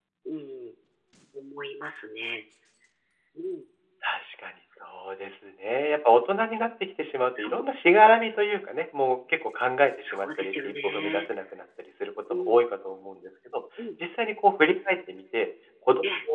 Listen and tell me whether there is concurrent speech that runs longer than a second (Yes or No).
Yes